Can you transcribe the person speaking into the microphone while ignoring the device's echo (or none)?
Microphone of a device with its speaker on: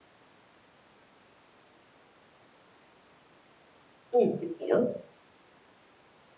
Ừm, mình hiểu.